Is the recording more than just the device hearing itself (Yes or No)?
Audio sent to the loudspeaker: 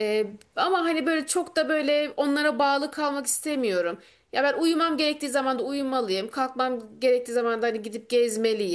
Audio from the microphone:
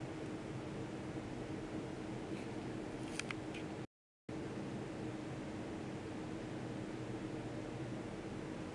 No